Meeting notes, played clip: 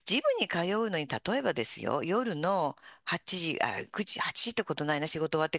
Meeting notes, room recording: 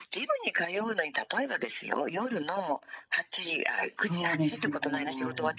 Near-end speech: present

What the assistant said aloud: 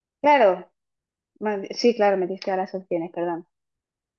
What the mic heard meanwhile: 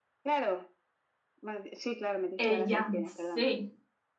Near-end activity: present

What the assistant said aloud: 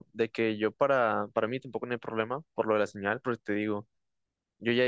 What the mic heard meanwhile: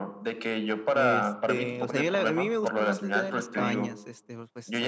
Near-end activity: present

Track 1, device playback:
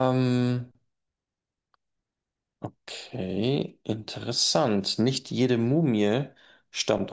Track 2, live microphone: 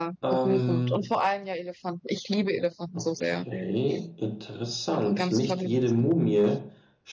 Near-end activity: present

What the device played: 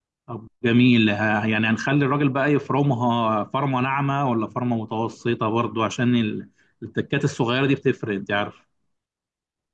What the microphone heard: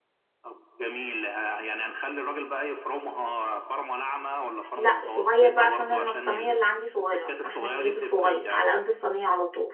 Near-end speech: present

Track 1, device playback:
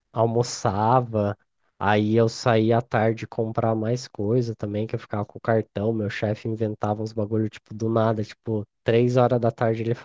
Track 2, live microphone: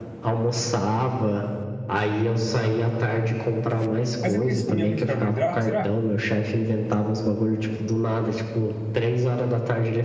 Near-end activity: present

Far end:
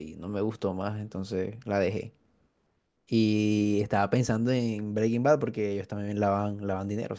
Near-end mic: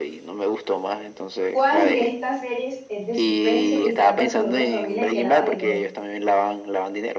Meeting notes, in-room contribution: present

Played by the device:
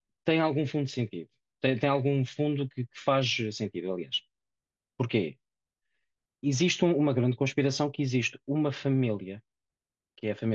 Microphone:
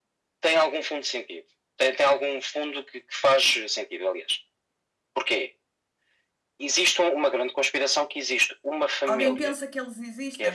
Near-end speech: present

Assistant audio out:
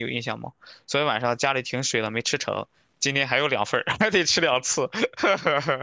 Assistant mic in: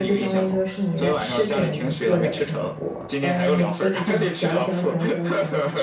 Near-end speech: present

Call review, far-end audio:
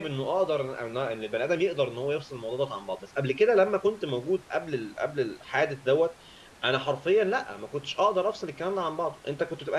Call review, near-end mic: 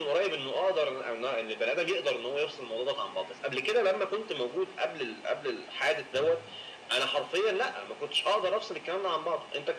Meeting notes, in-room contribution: none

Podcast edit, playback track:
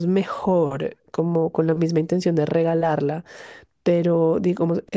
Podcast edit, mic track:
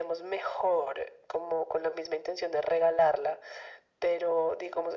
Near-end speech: none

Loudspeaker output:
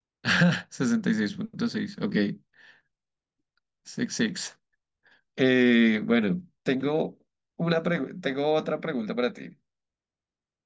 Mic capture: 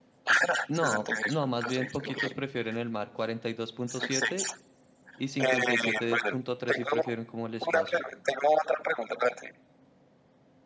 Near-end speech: present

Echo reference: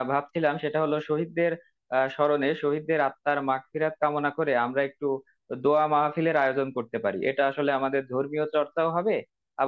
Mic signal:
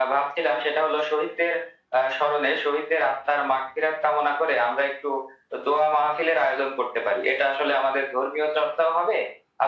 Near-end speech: none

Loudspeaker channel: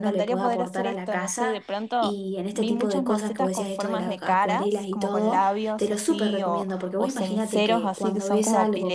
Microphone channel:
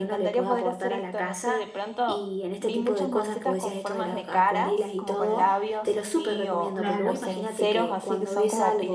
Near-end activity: present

